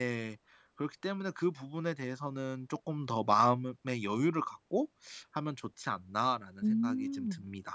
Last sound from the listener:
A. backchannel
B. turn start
B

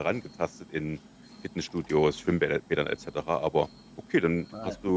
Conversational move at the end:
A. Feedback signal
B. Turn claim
A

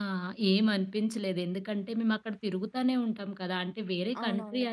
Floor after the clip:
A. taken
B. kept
B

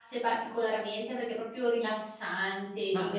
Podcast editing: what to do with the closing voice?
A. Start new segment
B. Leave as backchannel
A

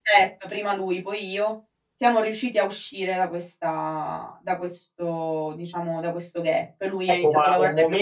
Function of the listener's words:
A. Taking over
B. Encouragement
A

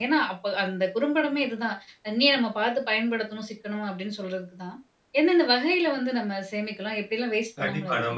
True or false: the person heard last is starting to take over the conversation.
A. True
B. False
A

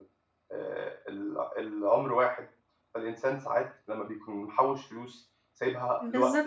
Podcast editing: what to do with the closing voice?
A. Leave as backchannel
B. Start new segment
B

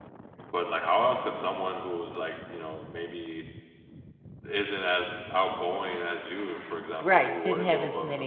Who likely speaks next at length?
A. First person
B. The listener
B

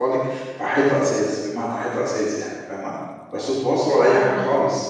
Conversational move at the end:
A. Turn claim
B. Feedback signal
B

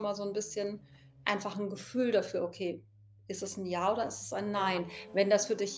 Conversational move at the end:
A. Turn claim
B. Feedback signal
B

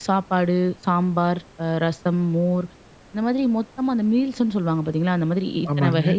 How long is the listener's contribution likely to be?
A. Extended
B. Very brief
B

